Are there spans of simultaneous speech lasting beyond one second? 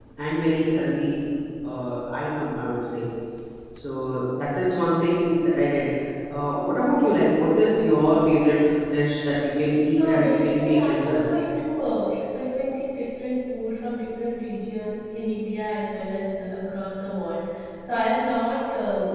Yes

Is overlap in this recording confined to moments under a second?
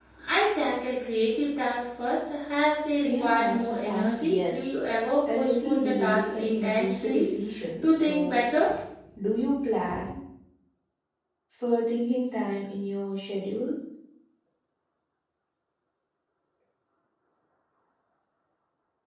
No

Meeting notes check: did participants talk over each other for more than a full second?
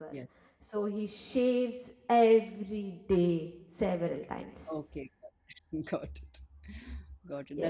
No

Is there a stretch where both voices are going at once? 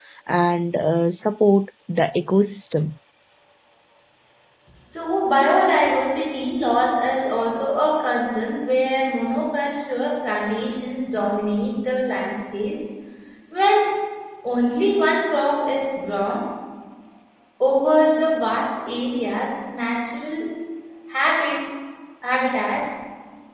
No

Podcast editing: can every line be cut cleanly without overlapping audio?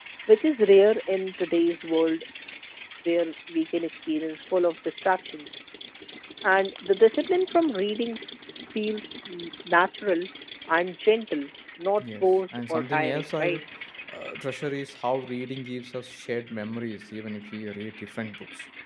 No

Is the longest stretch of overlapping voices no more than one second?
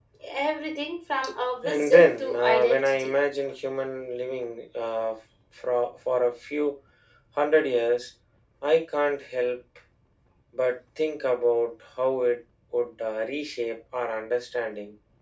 No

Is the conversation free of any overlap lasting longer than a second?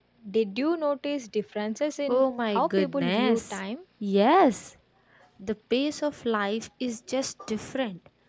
No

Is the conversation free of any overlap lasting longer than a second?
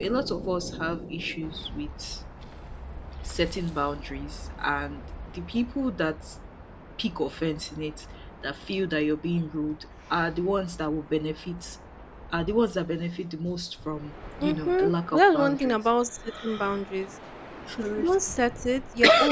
No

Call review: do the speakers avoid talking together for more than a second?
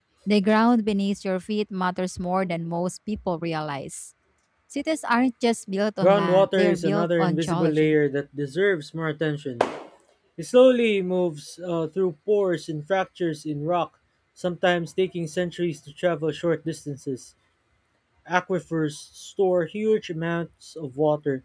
No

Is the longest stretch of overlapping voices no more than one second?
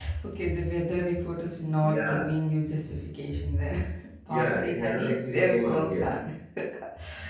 No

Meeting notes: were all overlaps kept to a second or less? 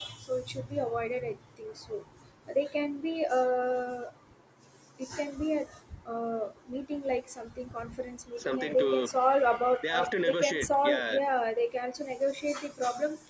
No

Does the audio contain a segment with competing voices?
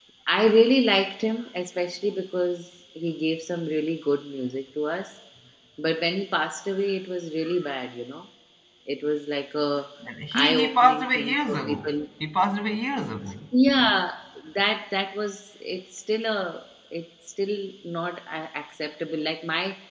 Yes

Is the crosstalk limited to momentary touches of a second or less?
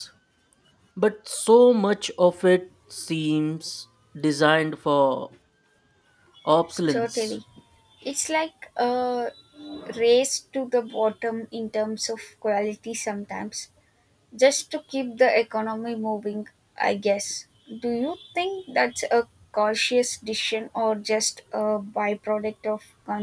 Yes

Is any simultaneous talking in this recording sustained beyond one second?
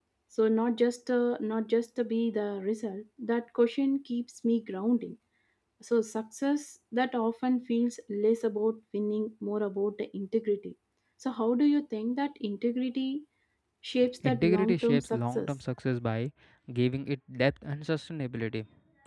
Yes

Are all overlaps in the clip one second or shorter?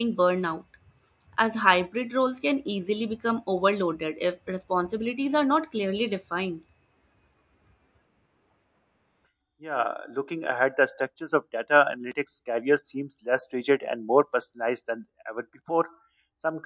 Yes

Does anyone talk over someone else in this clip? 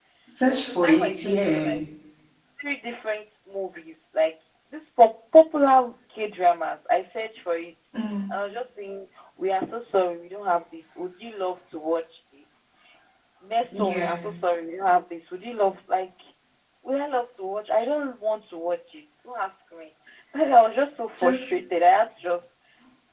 Yes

